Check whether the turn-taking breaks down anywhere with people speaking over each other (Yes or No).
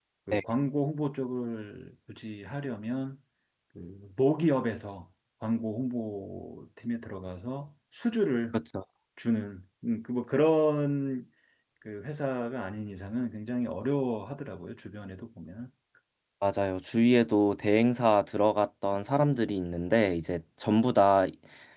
No